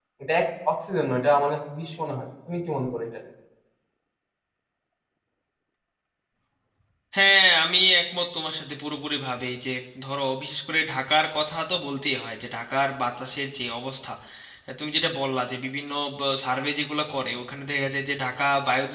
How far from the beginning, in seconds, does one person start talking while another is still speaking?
none

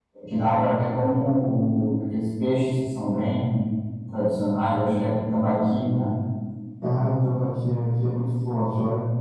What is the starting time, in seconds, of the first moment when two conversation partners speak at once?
none

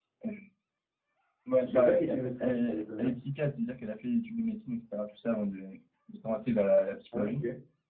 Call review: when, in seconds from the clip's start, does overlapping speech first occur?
2 s

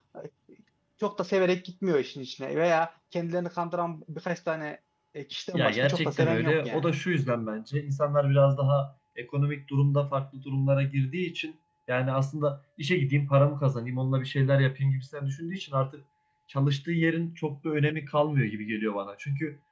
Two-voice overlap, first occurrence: 6 s

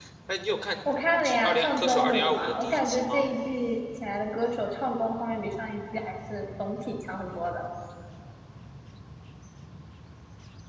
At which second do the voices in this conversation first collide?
1 s

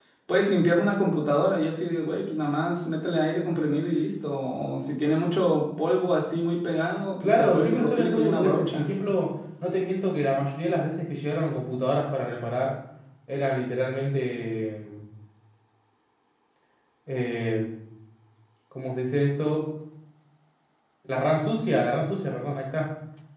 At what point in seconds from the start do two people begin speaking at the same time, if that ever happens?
7 s

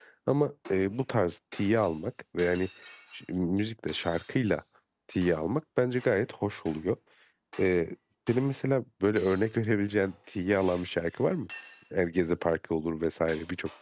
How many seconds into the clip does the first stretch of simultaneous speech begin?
none

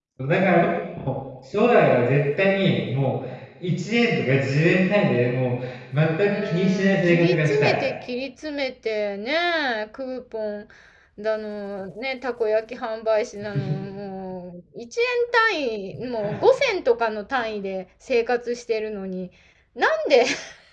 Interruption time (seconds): 6 s

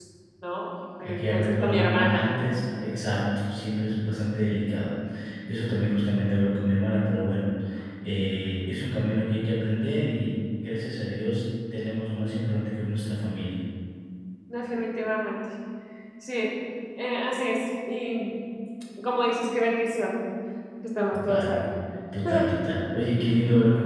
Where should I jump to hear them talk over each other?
1 s

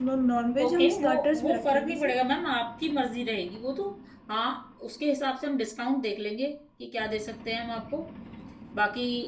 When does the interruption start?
1 s

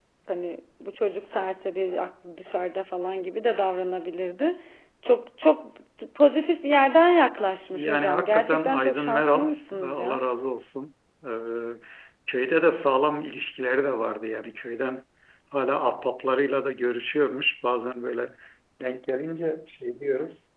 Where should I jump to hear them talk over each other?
8 s

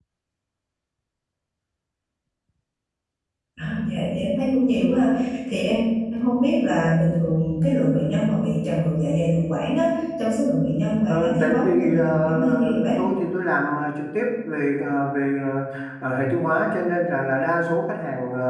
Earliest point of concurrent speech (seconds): 11 s

